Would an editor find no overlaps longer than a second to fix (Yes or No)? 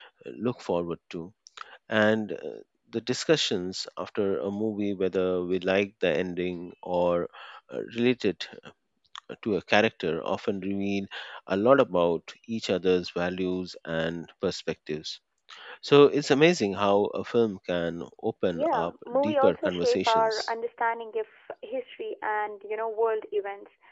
No